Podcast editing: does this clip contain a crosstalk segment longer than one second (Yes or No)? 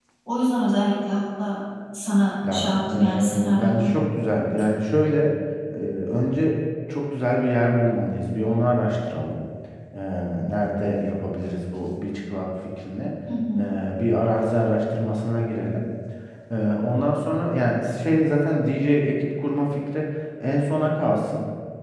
Yes